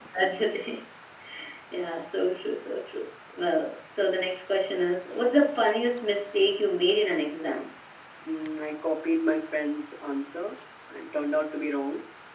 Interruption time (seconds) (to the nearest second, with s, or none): none